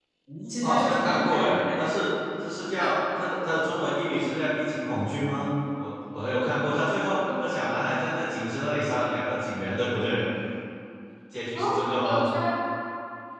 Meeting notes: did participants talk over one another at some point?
Yes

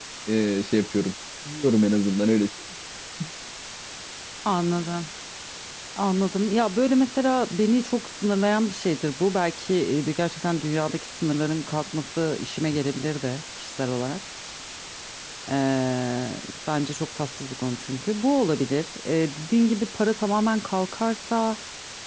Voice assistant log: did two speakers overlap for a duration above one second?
No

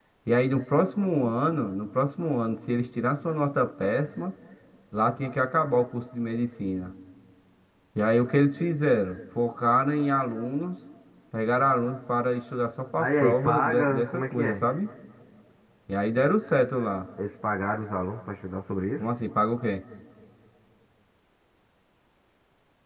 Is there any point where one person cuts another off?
Yes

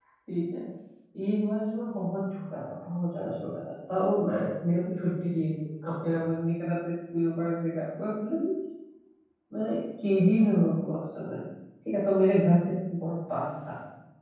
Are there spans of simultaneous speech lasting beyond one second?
No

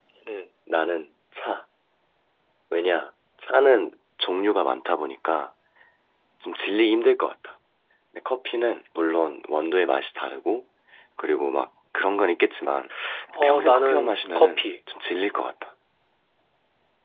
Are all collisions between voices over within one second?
No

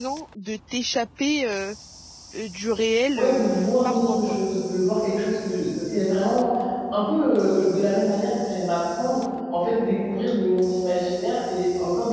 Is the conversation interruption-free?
No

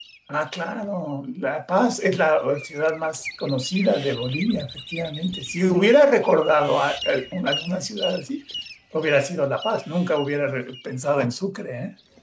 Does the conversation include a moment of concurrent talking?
No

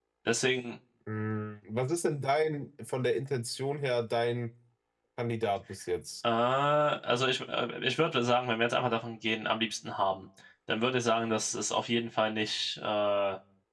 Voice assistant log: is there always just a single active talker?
Yes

